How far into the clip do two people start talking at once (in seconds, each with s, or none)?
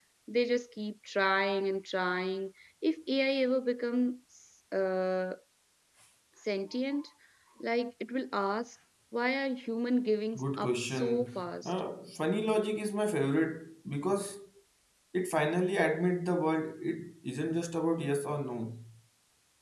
10.3 s